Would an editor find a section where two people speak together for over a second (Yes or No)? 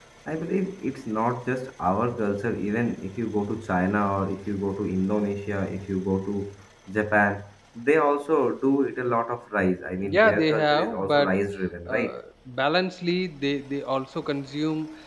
Yes